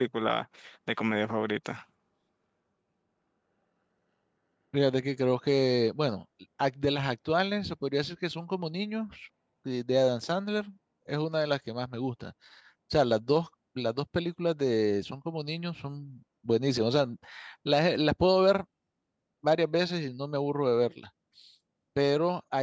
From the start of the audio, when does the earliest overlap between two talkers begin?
none

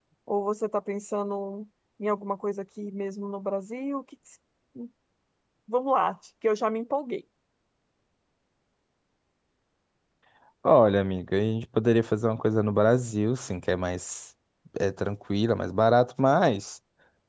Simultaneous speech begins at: none

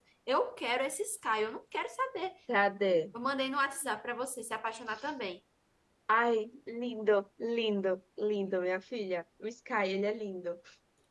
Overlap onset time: none

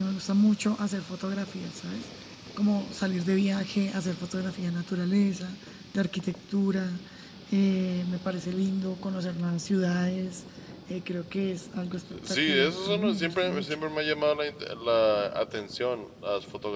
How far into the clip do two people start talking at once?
12.1 s

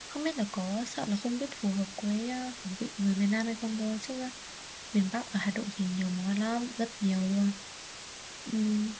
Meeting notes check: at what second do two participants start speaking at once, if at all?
none

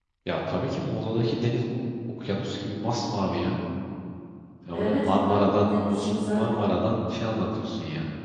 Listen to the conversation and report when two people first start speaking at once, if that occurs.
4.7 s

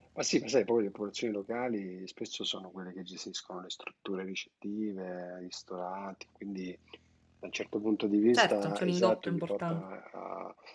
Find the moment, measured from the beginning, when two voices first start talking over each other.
8.3 s

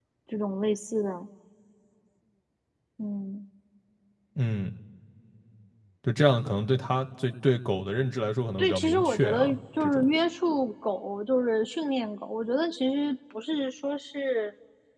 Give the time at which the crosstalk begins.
8.6 s

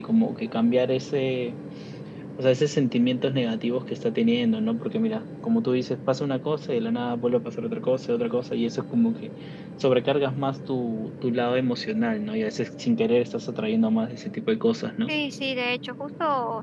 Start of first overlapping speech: none

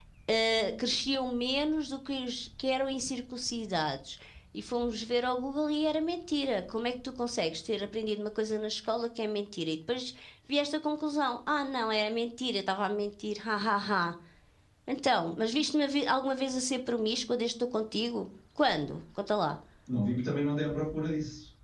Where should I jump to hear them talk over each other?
none

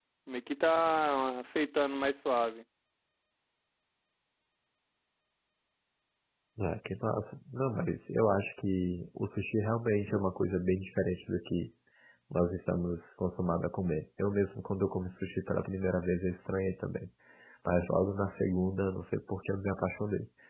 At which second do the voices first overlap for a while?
none

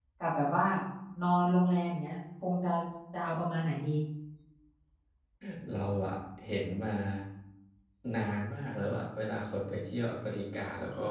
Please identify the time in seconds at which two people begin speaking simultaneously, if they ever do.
none

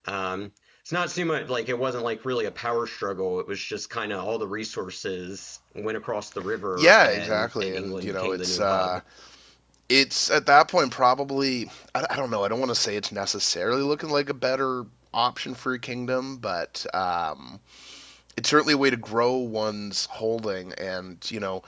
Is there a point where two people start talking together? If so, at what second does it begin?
6.8 s

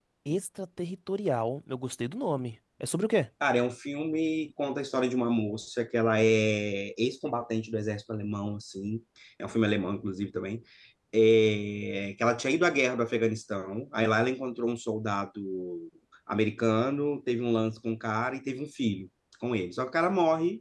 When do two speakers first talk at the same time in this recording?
none

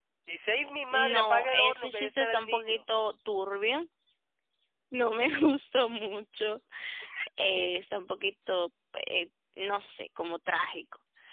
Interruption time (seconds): 0.9 s

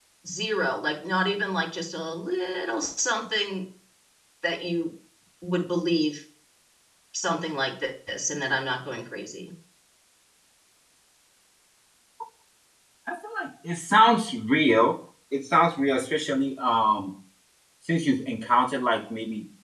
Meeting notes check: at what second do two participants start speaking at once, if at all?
none

